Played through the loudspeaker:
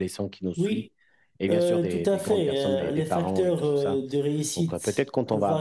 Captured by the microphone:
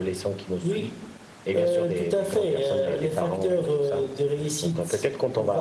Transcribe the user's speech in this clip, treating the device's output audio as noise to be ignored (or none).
none